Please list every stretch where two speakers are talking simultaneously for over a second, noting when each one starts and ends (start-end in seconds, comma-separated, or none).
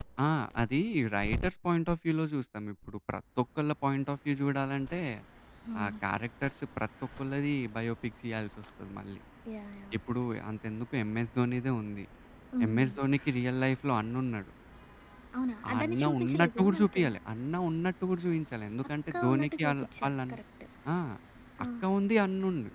15.7-17.0, 19.1-20.3